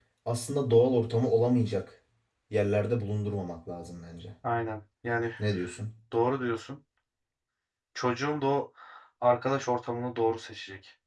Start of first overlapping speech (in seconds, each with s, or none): none